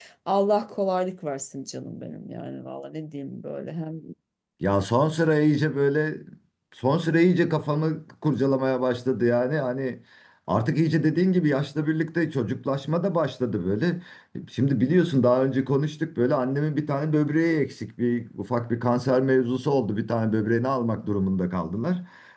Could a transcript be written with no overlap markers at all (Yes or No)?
Yes